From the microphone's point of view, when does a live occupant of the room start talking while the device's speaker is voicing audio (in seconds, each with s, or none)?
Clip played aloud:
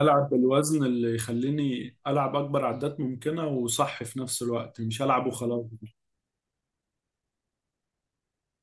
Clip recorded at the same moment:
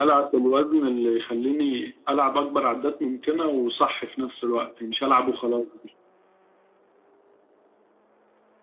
none